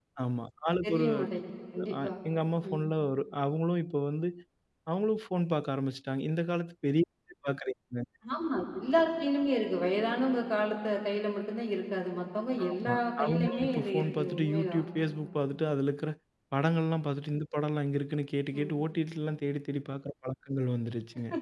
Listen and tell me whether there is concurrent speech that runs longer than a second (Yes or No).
Yes